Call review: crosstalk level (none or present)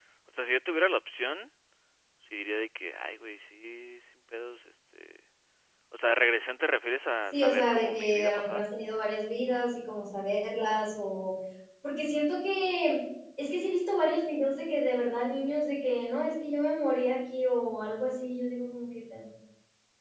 present